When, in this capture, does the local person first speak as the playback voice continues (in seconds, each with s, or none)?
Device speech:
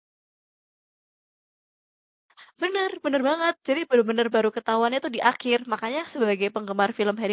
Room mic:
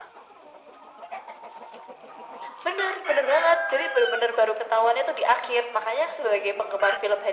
none